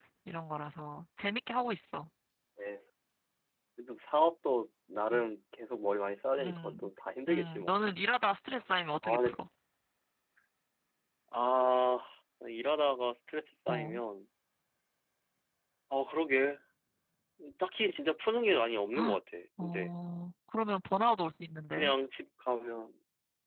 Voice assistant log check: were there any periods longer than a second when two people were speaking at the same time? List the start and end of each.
none

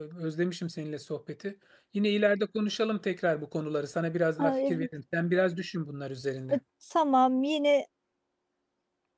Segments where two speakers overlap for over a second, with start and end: none

